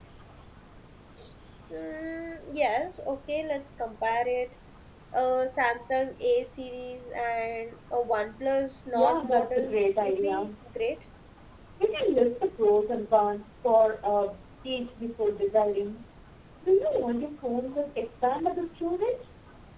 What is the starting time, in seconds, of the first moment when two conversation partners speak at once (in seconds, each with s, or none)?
8.9 s